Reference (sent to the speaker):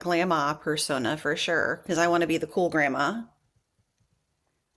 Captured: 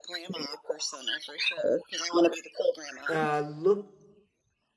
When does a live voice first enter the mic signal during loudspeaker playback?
3.1 s

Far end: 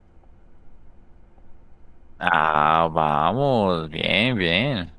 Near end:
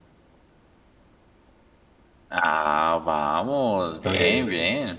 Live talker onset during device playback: 4.0 s

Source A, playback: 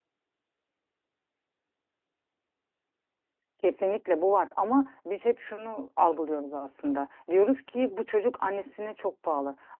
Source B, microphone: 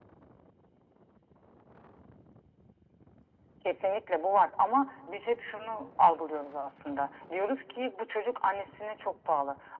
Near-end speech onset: none

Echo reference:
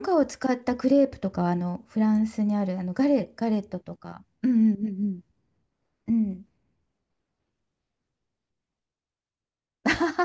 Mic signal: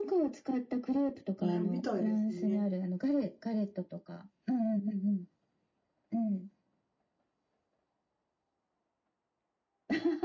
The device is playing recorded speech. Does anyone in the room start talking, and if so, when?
1.4 s

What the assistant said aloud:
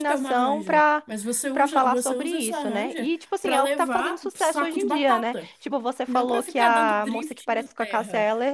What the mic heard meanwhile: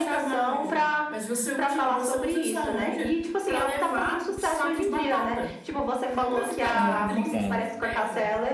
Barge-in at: 6.7 s

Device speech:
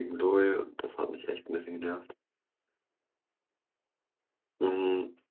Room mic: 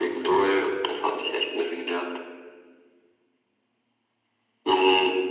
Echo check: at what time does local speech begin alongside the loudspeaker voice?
none

